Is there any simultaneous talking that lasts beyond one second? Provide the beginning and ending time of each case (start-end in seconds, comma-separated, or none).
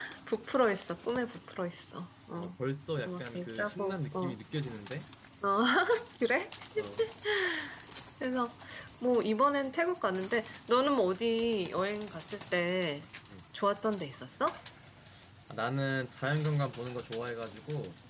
3.0-4.3